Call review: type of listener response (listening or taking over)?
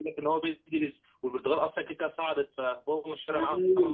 taking over